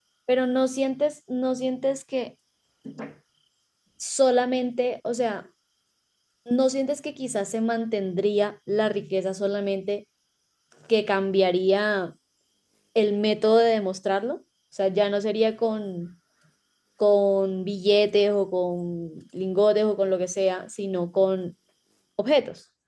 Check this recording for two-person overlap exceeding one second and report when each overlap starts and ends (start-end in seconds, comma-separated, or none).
none